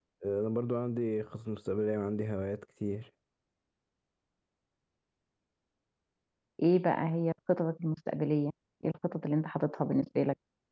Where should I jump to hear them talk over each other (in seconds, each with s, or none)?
none